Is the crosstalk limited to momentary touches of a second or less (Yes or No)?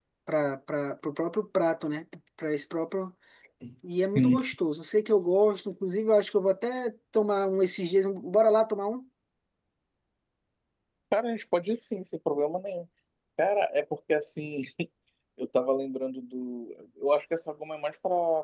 Yes